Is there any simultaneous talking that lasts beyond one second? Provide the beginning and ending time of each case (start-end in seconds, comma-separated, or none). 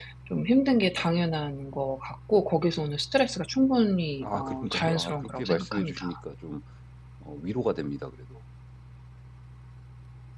4.2-6.0